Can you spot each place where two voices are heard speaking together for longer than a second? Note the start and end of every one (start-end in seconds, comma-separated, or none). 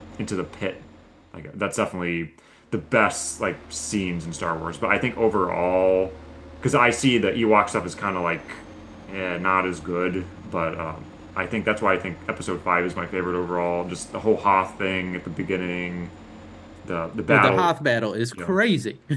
none